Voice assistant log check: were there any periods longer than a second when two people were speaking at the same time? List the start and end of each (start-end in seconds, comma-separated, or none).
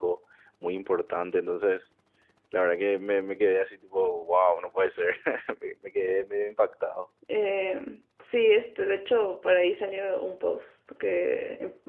none